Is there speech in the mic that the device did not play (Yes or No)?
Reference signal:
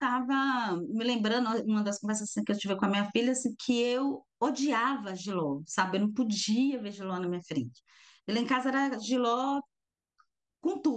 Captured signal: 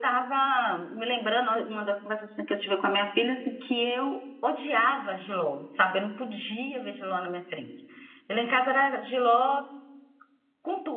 No